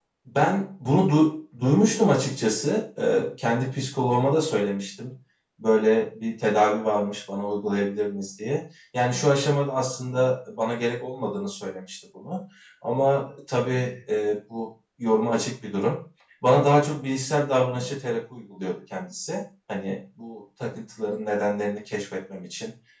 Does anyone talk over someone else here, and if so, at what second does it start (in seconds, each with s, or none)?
none